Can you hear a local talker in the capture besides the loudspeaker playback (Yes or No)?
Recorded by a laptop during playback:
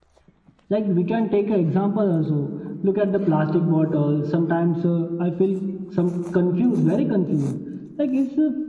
No